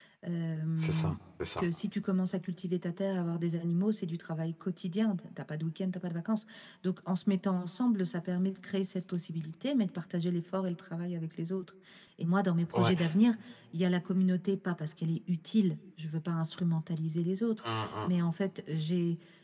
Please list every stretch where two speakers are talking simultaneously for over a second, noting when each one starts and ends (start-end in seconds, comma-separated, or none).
none